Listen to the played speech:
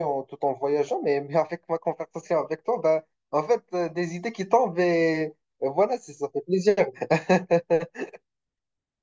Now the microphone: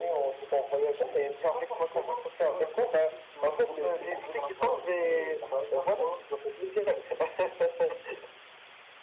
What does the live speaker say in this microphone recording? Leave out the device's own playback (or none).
Pas forcément, parce que voilà, comme je t'ai dit, je, je voulais découvrir la planète, euh, la planète Terre, quoi.